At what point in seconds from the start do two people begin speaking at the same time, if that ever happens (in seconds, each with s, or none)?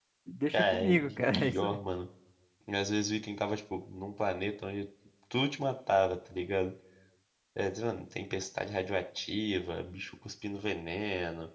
0.5 s